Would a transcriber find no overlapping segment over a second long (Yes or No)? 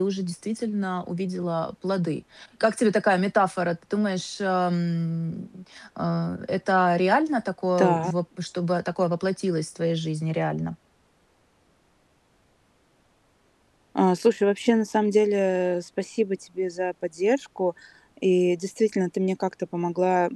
Yes